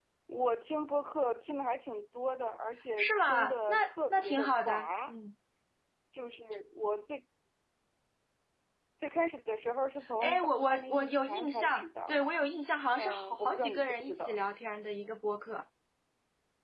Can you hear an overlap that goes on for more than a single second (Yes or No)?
Yes